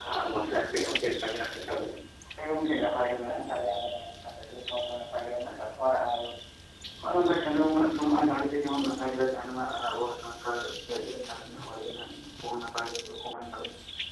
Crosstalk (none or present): none